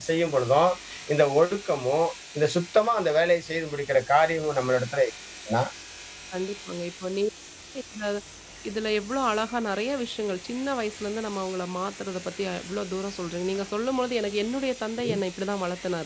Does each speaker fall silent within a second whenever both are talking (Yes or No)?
Yes